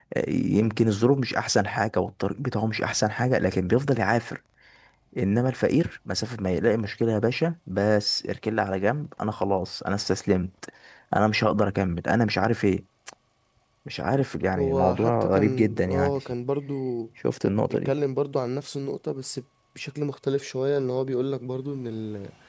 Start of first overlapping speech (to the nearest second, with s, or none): 15 s